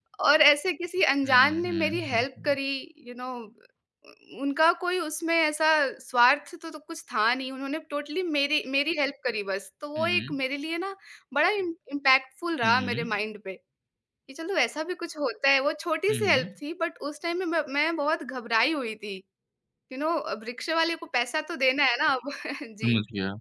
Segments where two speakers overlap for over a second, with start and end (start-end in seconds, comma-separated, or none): 1.2-2.6